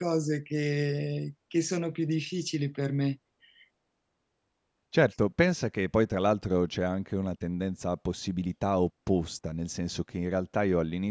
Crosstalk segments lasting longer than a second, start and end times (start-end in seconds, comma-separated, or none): none